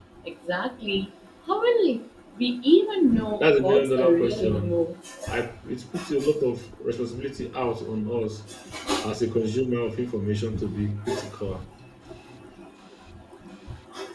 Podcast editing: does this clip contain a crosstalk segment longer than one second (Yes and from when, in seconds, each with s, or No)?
Yes, from 3.4 s